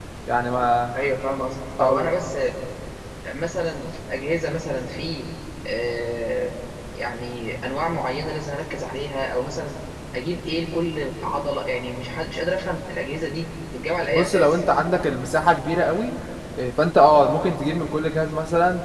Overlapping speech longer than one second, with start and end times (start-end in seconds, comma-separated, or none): none